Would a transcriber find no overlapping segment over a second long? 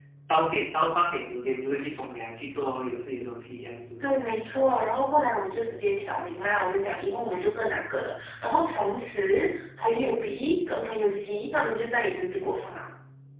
Yes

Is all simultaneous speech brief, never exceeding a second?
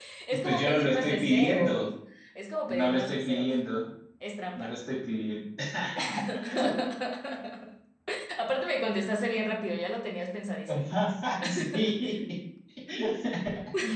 No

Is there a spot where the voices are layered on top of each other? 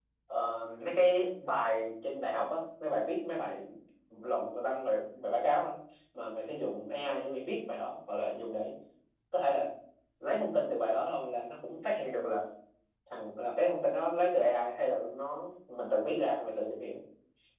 No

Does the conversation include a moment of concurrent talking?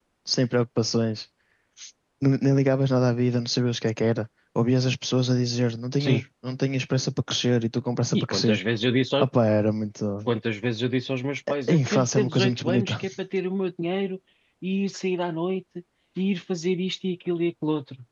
Yes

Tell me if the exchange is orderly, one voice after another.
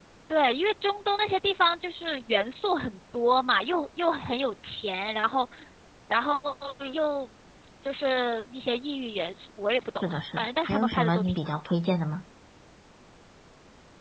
No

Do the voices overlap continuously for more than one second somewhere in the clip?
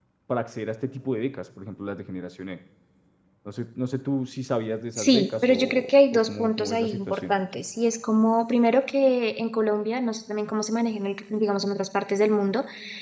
Yes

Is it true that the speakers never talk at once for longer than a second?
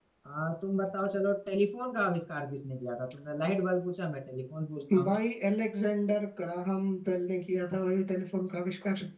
Yes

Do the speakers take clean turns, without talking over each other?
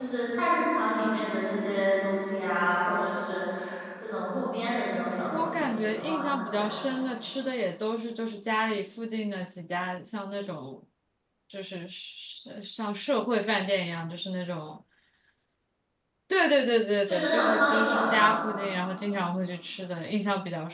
No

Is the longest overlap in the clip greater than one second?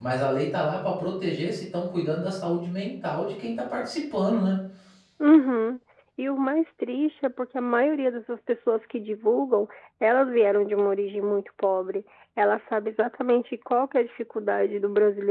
No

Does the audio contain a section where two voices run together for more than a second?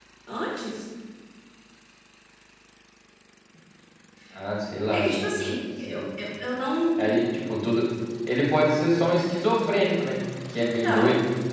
No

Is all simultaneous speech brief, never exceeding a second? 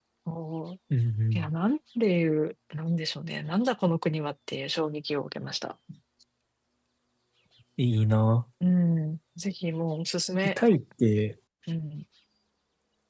Yes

